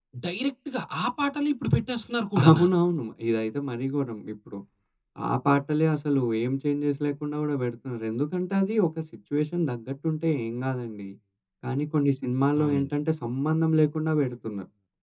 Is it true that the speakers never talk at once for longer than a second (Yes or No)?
Yes